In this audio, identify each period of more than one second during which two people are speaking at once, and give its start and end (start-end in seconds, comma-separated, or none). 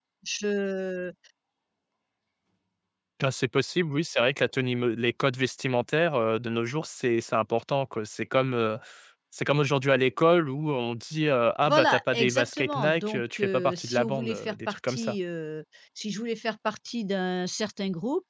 11.7-15.2